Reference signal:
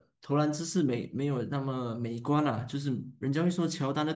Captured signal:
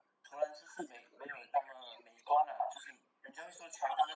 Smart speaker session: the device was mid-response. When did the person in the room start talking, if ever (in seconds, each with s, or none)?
none